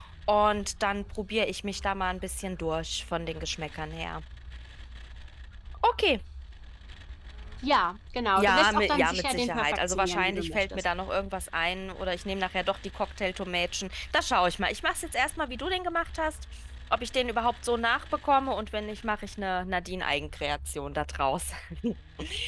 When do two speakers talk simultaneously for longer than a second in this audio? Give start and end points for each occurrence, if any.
8.4-10.8

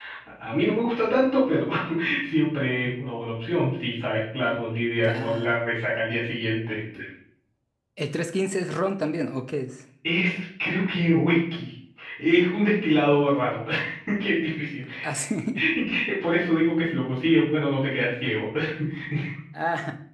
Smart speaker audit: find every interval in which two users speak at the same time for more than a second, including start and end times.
none

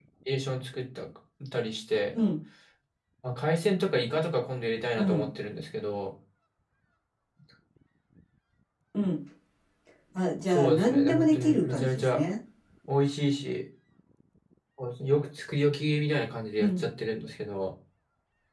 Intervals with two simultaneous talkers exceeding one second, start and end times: 10.5-12.2

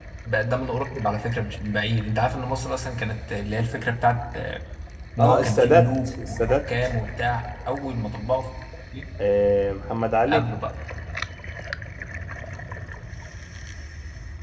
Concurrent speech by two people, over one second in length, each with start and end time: 5.2-6.6

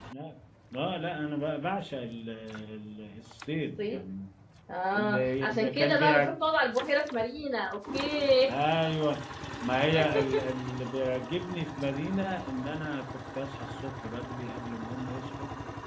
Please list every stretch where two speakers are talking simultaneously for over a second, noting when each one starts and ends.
4.9-6.3

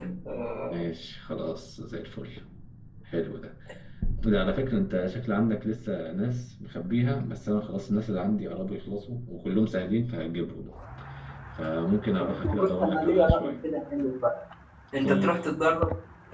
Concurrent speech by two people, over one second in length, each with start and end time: 12.2-13.5

